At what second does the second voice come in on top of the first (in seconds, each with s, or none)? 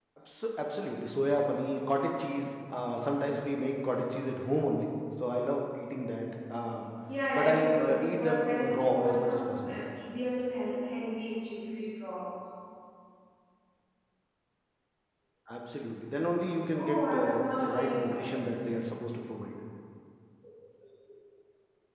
7.4 s